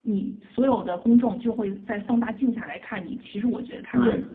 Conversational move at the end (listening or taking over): taking over